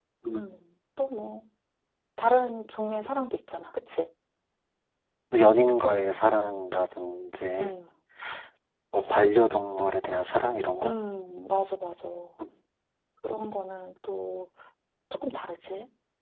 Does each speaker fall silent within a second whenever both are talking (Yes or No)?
Yes